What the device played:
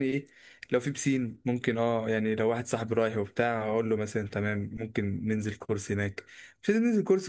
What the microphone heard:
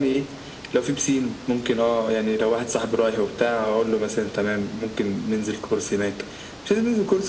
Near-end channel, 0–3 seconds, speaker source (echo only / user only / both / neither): echo only